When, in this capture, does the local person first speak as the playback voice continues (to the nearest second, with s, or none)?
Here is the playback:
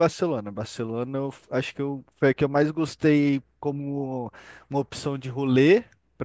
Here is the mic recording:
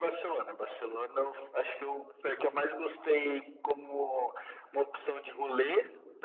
none